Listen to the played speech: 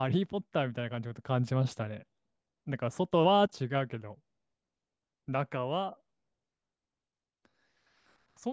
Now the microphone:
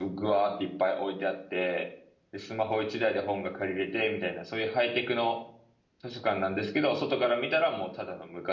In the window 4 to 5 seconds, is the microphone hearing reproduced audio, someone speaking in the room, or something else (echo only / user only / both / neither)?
user only